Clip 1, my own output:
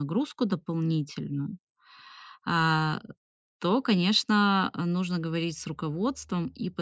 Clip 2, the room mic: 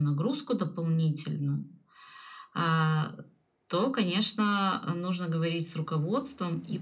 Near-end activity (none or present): none